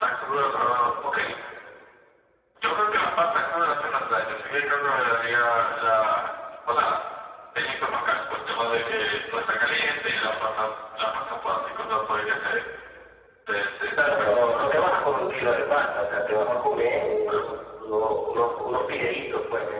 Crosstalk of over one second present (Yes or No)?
No